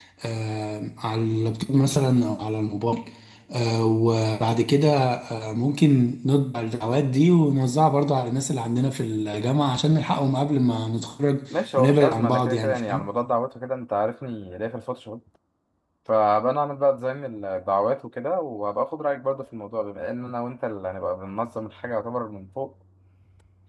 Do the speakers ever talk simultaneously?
Yes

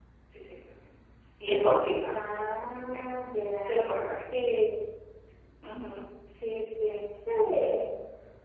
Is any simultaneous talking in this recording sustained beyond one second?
No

